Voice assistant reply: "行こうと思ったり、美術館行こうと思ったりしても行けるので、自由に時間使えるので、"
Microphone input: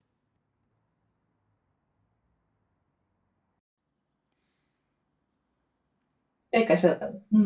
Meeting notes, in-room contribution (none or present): present